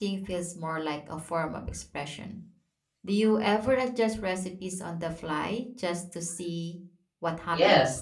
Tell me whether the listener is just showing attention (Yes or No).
No